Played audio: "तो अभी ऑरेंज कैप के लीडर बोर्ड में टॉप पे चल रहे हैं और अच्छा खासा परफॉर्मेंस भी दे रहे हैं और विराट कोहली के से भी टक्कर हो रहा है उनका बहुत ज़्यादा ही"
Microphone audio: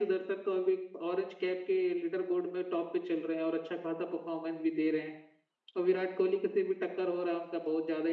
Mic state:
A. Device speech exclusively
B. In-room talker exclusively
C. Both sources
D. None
A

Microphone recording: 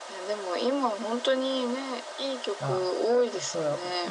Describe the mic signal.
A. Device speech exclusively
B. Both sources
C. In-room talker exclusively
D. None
B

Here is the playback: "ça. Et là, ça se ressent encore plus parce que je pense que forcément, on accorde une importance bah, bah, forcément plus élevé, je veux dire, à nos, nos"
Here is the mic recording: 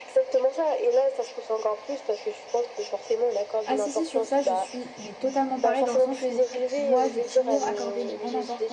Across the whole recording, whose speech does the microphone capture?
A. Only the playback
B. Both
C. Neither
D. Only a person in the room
B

